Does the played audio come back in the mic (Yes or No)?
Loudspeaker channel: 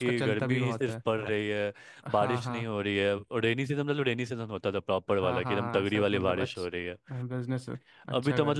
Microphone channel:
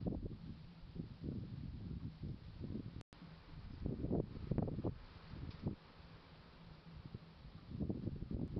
No